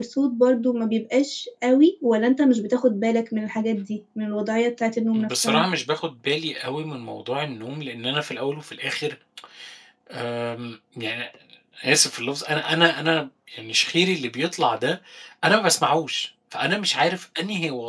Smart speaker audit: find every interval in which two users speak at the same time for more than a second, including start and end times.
none

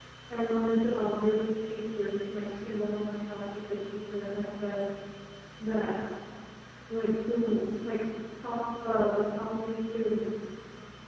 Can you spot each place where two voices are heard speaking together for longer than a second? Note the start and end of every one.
none

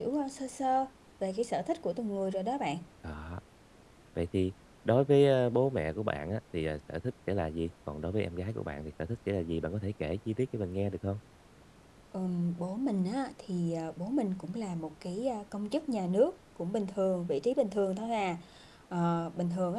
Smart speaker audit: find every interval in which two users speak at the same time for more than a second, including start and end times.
none

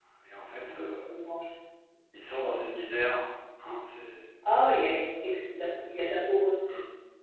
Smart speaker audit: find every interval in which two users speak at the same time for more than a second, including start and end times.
none

